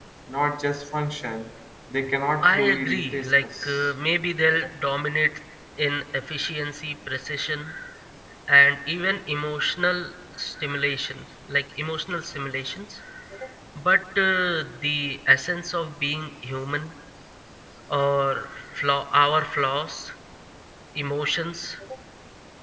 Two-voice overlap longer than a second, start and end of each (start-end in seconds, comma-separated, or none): 2.4-3.9